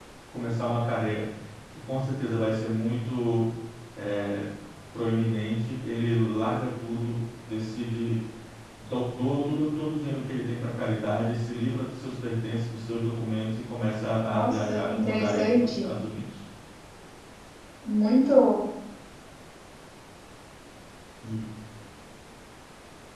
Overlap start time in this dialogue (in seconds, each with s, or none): 14.3 s